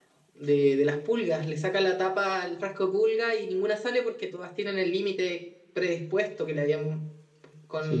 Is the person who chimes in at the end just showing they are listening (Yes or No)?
No